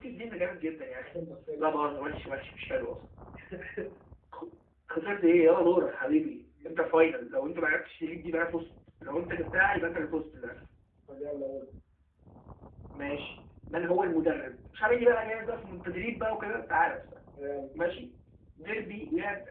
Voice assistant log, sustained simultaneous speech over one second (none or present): none